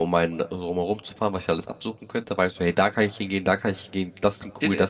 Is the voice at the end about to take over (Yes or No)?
Yes